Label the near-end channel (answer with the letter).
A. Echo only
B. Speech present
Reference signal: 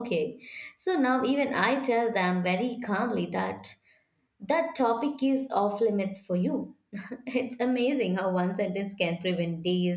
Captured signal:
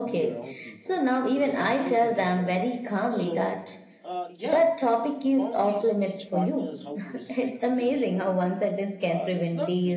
B